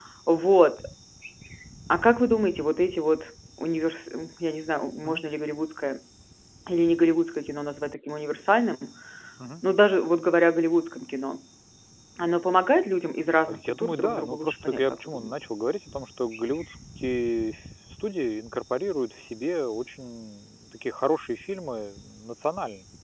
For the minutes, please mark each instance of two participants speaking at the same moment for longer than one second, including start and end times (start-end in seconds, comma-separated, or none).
13.5-15.3